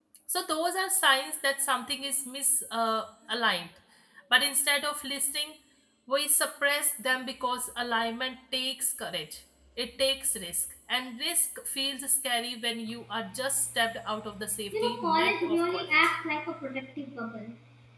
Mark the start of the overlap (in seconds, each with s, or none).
14.7 s